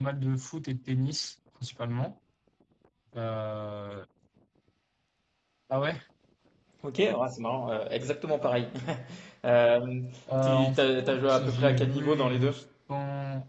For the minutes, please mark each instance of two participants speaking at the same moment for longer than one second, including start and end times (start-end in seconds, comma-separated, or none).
10.4-12.6